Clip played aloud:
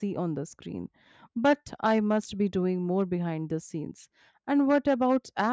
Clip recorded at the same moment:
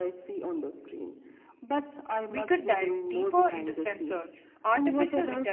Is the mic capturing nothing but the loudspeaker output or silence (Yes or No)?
No